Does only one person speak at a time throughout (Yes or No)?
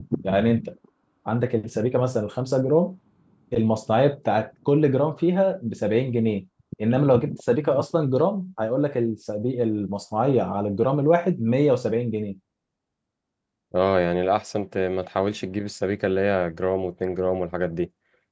Yes